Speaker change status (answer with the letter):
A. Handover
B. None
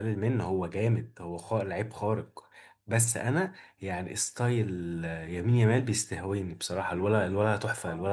A